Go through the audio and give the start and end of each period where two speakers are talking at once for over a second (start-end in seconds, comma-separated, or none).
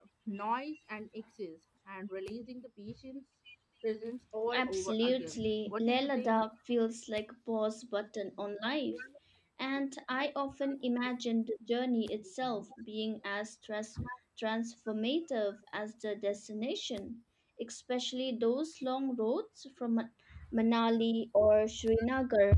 4.5-6.4